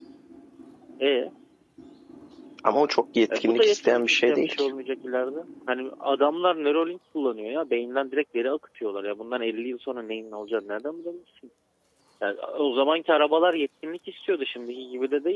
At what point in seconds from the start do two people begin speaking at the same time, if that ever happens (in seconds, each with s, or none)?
3.4 s